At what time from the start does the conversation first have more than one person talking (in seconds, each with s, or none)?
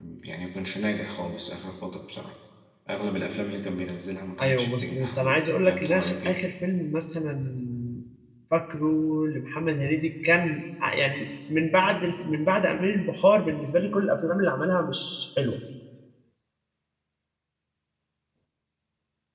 4.4 s